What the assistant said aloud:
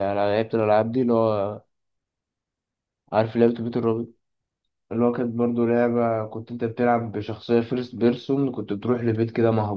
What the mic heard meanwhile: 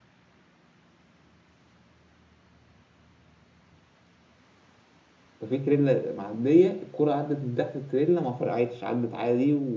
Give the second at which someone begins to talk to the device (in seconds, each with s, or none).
5.4 s